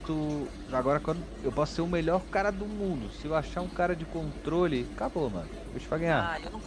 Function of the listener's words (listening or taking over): taking over